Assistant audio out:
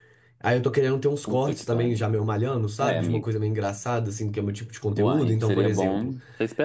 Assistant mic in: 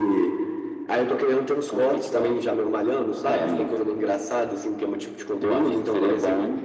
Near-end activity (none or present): none